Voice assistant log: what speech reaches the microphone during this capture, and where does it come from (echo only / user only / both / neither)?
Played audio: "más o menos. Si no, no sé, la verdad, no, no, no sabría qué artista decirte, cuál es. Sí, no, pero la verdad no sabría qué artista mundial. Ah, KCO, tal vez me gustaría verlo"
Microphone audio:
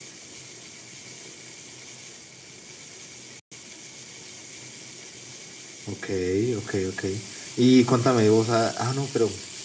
user only